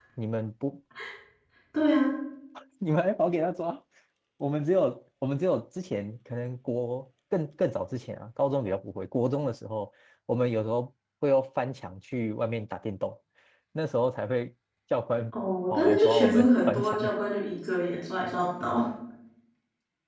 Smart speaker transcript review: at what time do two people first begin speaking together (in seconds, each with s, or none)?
15.7 s